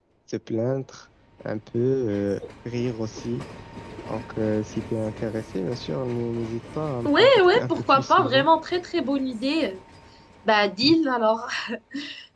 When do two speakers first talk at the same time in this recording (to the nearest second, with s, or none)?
7 s